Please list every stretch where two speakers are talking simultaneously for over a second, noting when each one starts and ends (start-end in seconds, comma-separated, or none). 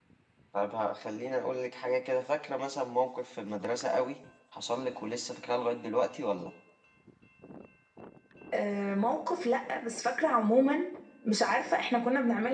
none